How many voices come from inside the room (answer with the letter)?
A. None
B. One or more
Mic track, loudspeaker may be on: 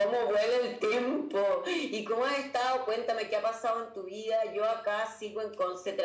A